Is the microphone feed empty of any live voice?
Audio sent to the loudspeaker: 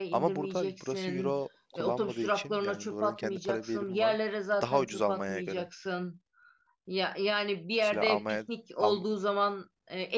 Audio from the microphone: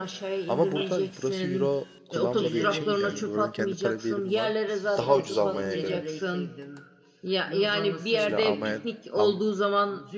No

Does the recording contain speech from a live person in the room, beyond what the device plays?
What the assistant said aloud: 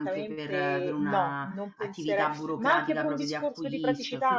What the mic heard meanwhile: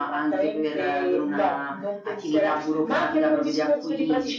No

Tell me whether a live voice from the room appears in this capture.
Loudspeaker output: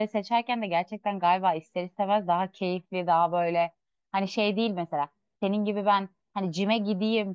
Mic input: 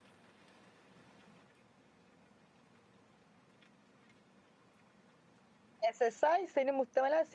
Yes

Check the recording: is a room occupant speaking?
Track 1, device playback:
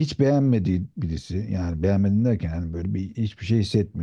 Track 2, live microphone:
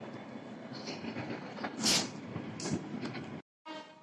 No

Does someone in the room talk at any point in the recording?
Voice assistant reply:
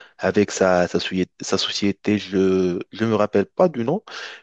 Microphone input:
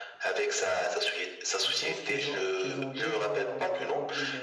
Yes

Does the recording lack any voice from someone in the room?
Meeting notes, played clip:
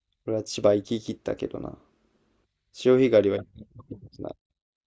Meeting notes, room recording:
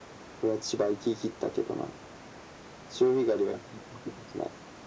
Yes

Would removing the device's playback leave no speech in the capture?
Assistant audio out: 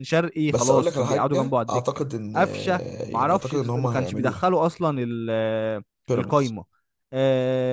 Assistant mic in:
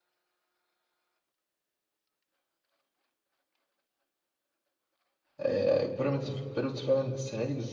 No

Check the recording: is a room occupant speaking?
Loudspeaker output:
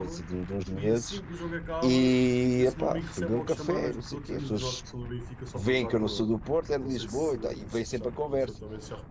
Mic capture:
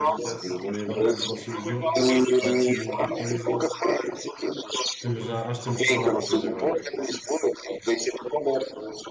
Yes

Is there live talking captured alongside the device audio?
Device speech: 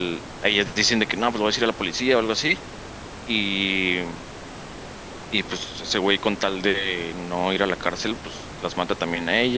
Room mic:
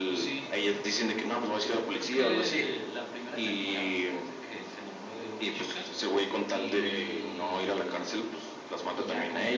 Yes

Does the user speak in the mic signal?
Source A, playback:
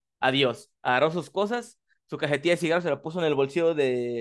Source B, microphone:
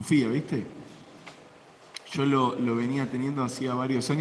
Yes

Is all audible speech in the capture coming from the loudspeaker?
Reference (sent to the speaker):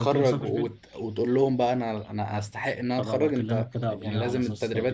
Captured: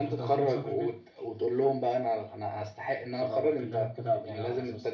Yes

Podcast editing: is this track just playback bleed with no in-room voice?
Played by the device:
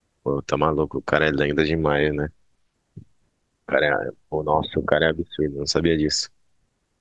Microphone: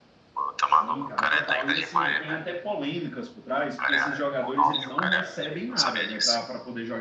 No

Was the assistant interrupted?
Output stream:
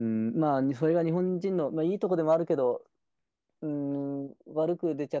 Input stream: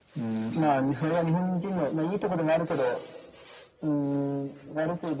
No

